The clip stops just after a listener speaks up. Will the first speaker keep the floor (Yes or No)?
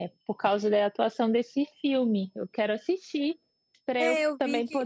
No